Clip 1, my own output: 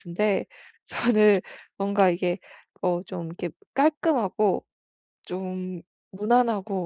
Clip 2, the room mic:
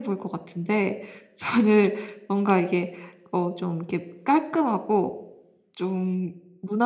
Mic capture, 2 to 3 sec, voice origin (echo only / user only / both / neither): echo only